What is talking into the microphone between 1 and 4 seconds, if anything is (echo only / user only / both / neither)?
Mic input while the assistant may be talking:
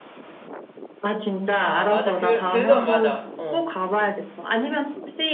both